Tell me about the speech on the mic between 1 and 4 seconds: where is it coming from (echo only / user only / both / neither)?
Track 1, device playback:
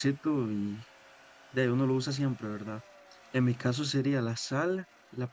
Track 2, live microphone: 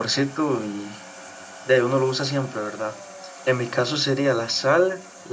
echo only